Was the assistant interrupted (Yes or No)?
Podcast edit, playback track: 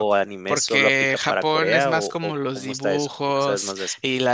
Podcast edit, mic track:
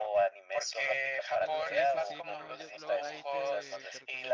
Yes